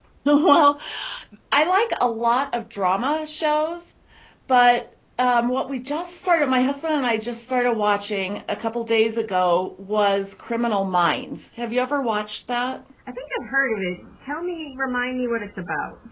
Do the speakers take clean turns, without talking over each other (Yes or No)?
Yes